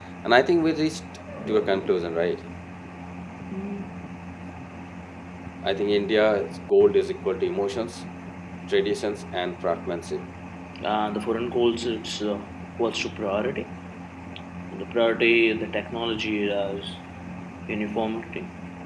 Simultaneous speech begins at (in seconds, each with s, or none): none